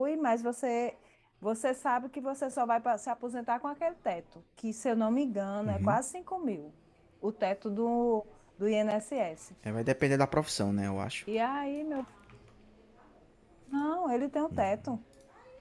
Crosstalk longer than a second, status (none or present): none